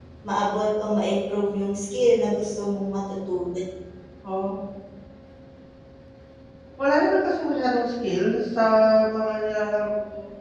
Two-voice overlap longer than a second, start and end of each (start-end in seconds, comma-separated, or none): none